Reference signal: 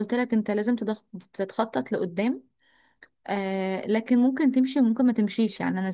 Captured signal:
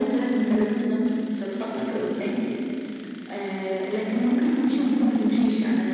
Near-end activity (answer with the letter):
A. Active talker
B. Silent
B